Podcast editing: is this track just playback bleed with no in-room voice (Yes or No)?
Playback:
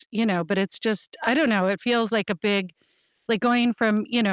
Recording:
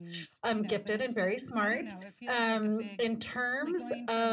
No